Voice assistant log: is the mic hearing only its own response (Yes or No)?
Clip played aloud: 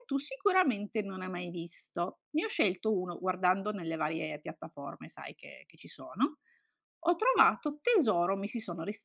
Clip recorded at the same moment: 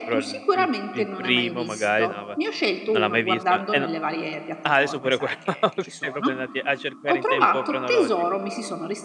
No